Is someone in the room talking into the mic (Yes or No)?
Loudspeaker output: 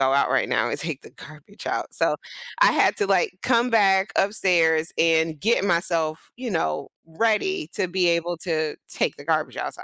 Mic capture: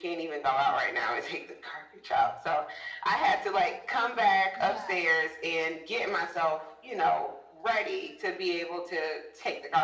Yes